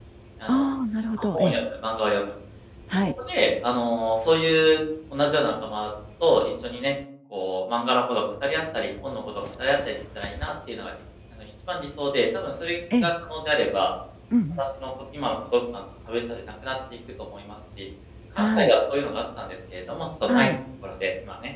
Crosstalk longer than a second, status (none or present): none